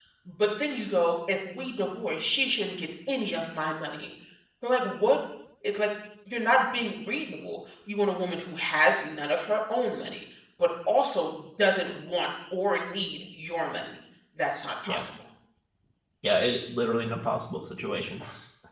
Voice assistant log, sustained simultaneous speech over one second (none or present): none